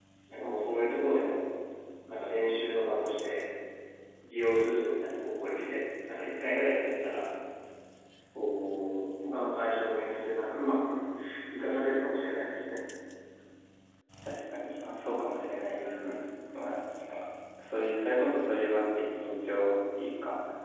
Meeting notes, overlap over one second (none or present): none